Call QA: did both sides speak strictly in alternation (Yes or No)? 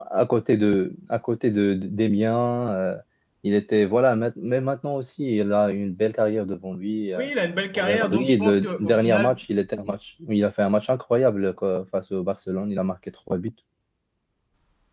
No